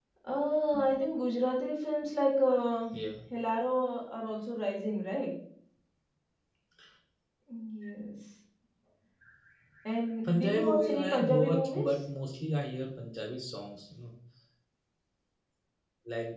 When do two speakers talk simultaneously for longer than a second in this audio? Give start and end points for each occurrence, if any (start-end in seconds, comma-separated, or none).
10.3-11.9